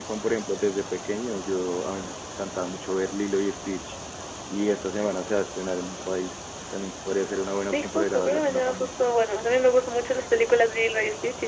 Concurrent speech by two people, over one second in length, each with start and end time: 7.7-8.9

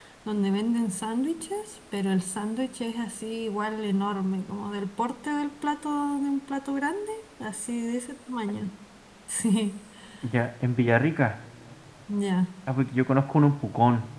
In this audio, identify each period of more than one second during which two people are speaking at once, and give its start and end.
none

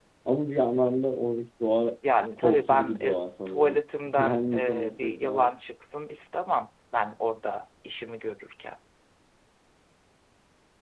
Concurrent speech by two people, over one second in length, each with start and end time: 2.4-5.6

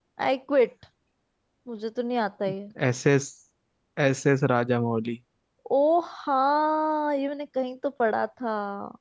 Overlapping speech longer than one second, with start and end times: none

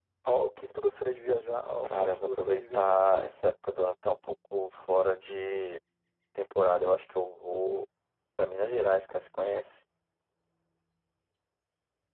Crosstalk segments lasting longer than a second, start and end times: 1.8-3.1

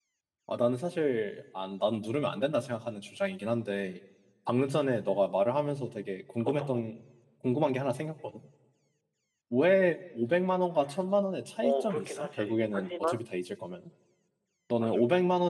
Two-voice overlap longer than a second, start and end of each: 11.6-13.3

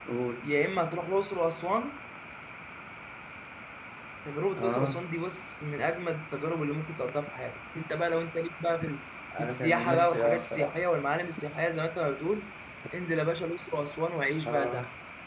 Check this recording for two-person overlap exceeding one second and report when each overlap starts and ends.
9.4-10.8

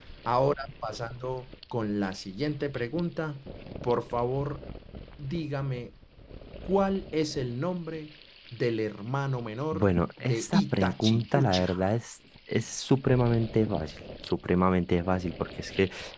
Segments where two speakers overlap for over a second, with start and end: 9.7-11.9

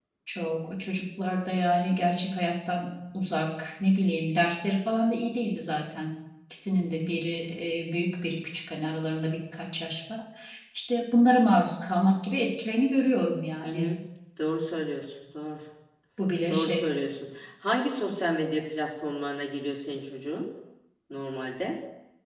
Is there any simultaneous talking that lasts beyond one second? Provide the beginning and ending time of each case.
none

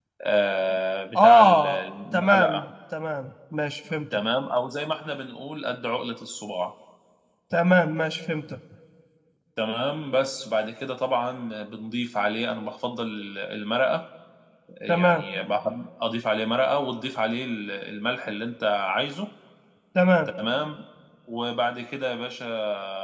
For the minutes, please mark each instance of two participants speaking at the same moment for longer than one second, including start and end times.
1.2-2.6

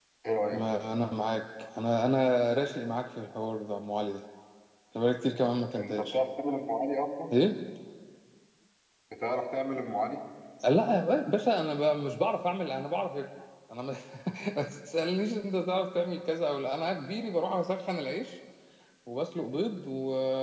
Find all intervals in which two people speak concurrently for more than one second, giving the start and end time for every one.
none

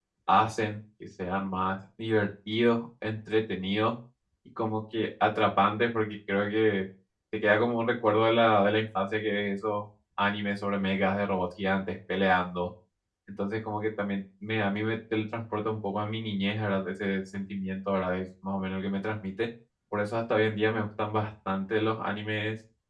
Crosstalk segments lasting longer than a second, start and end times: none

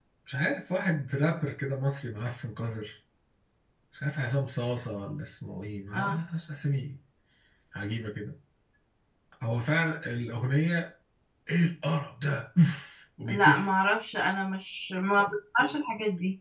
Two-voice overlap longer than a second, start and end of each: none

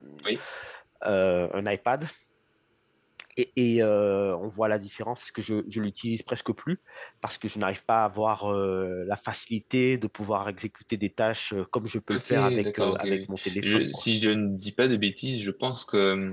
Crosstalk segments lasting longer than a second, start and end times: 12.1-14.0

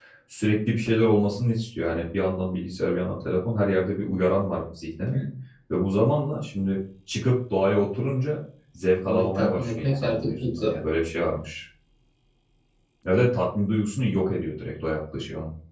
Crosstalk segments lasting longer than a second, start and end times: 9.1-10.7

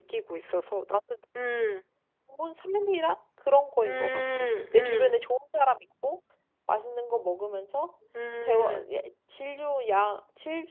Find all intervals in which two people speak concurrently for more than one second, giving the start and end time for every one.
3.8-5.2

